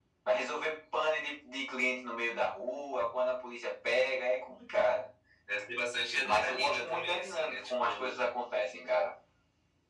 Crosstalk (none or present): present